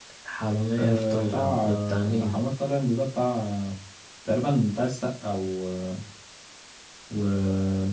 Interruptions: present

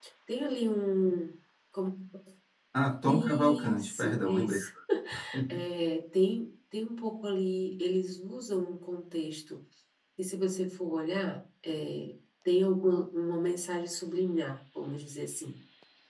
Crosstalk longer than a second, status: present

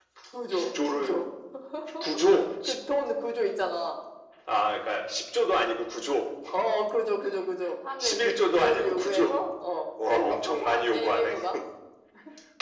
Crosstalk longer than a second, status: present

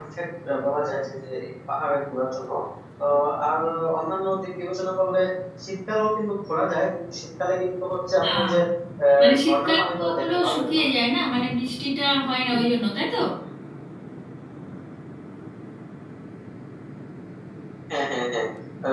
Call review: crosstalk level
present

